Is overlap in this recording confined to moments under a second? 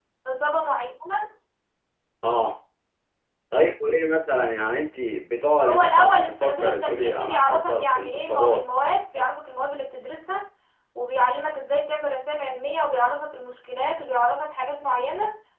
No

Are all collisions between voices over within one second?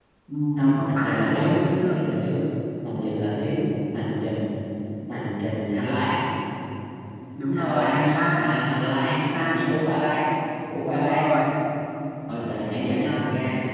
No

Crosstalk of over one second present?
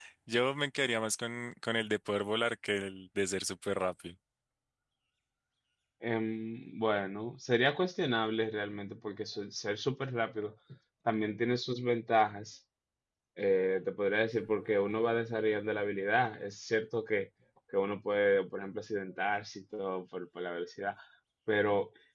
No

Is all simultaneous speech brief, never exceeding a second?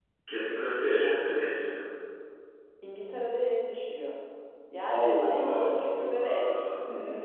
No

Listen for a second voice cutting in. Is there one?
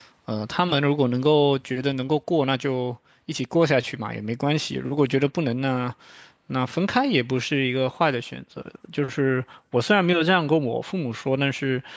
No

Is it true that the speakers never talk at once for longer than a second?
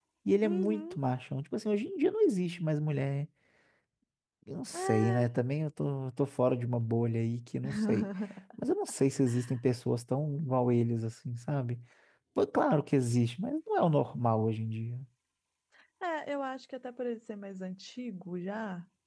Yes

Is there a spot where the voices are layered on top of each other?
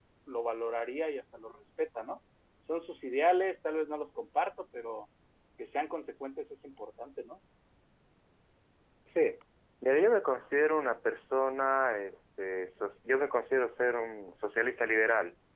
No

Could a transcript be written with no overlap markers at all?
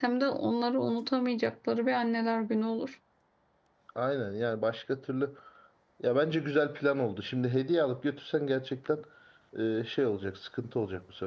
Yes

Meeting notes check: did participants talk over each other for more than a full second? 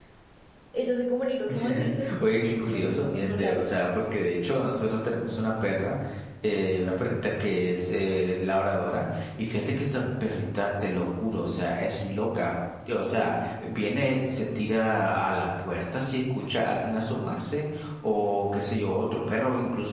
Yes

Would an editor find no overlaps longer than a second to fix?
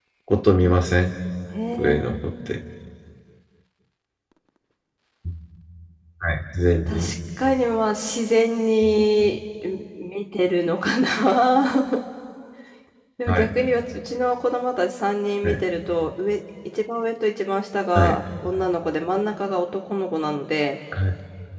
Yes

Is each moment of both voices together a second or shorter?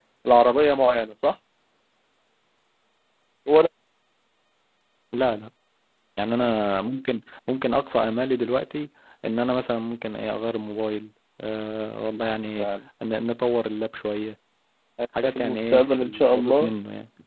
No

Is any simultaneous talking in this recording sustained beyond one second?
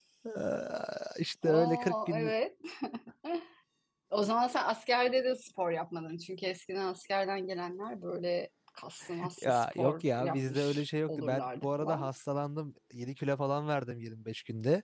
Yes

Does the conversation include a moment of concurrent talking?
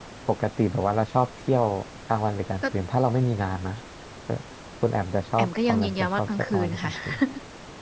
Yes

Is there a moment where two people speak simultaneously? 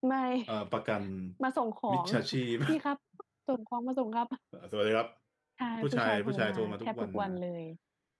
Yes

